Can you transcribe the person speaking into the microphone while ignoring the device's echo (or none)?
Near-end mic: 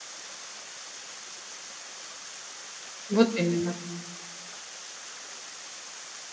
Вот именно.